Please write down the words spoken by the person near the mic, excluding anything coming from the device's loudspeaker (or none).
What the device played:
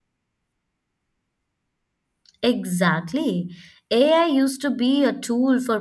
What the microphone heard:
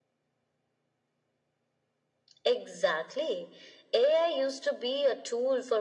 none